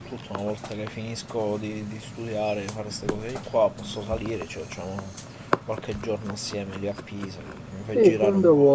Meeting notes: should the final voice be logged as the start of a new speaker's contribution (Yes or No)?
Yes